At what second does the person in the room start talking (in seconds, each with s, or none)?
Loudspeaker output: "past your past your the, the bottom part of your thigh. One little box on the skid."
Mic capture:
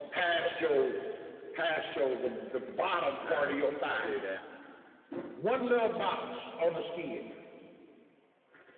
3.2 s